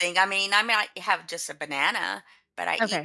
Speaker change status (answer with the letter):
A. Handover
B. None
A